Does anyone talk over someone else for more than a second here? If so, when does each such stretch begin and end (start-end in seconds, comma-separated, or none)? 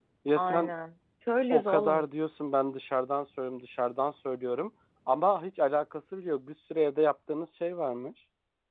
none